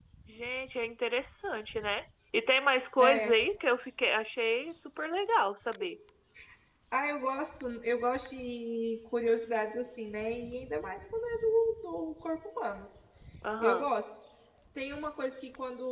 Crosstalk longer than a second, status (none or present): none